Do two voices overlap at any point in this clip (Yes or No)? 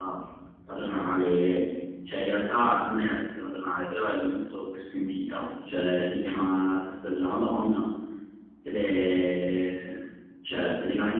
No